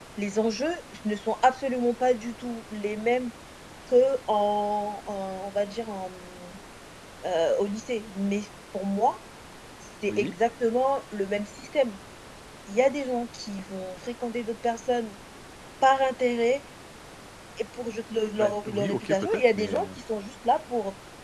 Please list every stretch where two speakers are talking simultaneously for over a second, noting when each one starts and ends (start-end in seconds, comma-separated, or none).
18.4-19.8